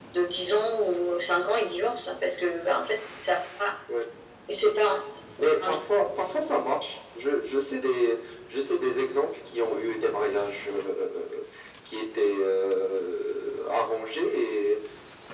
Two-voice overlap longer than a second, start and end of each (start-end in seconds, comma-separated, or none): none